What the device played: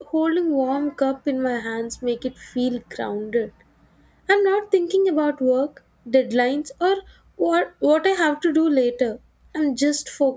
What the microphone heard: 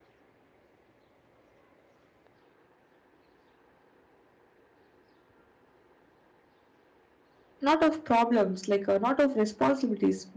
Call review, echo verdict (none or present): none